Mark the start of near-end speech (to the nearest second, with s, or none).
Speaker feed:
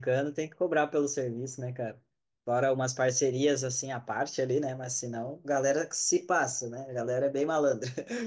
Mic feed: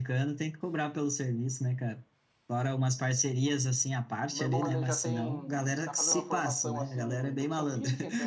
4 s